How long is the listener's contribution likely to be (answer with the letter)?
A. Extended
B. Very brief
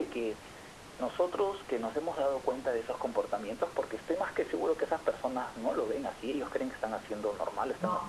B